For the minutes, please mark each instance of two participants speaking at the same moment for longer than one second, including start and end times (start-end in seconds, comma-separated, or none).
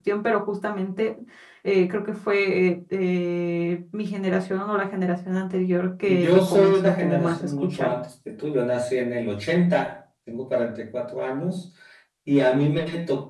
6.1-7.9